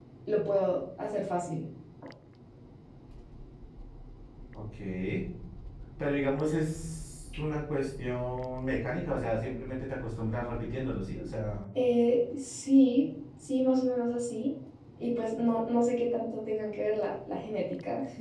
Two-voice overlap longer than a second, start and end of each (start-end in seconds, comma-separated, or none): none